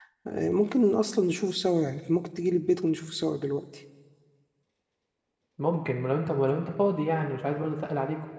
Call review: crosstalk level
none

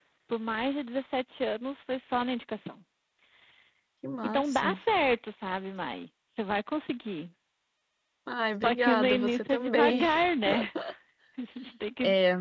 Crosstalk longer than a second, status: present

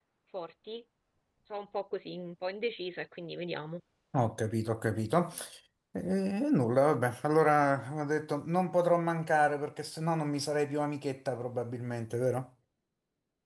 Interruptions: none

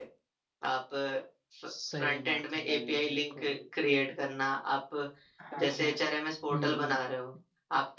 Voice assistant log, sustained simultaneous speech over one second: present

